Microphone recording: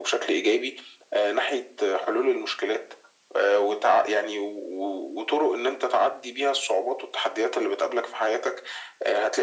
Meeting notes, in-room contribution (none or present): none